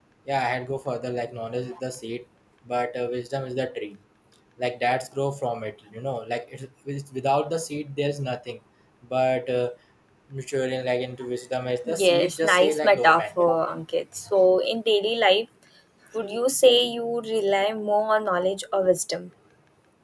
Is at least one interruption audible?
Yes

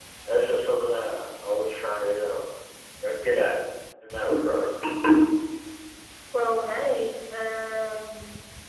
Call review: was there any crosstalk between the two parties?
No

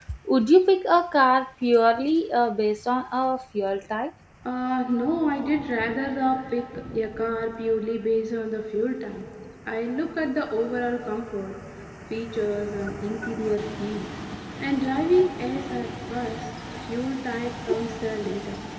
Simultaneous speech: No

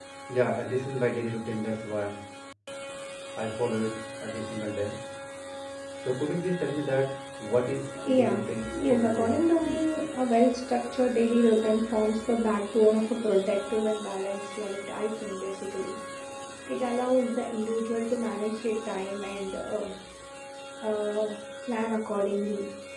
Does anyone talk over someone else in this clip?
Yes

